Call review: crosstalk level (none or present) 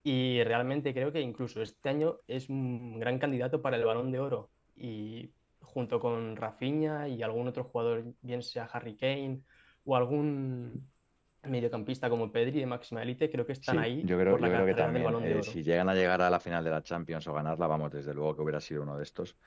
present